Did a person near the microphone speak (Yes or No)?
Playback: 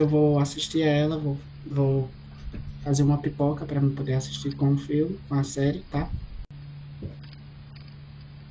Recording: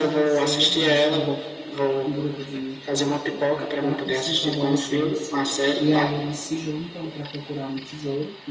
Yes